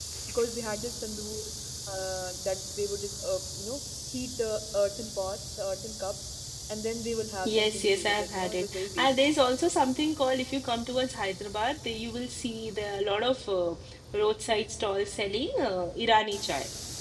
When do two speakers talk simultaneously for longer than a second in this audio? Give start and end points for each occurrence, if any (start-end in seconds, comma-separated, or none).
7.5-9.3